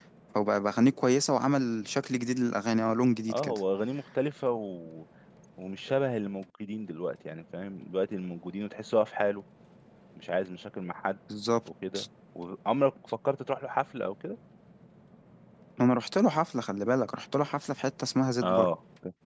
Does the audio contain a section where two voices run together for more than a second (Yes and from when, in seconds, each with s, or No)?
No